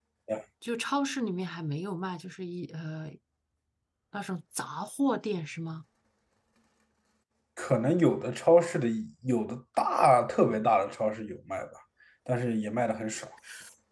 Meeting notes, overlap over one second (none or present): none